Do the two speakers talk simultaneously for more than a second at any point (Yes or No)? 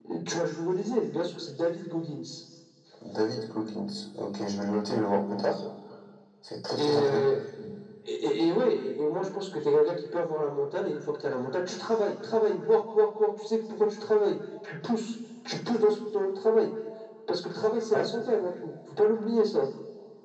No